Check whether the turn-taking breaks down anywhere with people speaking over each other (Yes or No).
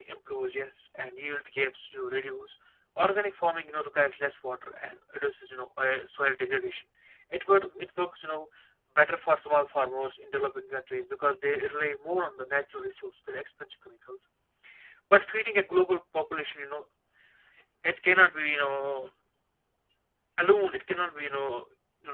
No